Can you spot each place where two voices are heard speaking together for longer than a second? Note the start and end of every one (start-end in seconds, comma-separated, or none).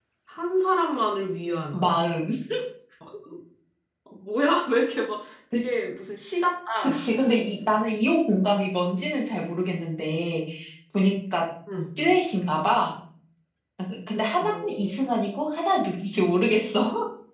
none